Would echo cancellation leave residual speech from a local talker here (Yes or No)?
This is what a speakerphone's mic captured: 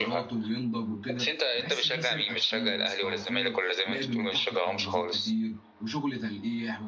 Yes